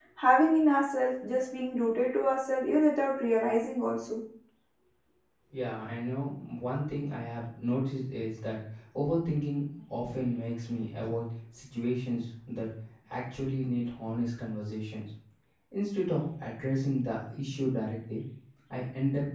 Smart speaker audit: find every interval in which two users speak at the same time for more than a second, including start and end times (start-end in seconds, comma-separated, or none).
none